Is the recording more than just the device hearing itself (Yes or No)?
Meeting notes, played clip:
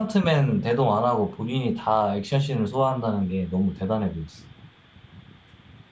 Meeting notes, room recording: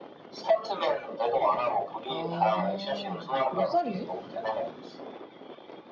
Yes